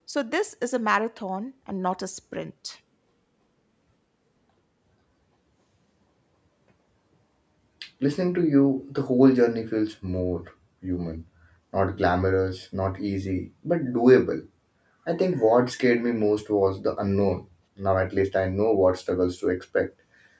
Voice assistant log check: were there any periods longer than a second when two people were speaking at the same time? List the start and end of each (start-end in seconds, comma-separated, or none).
none